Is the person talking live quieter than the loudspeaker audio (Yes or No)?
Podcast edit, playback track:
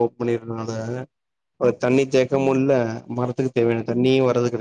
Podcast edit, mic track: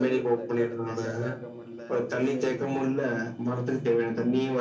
Yes